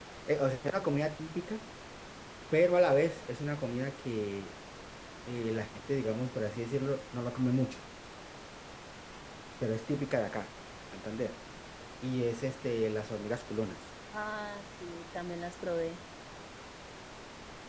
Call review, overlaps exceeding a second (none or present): none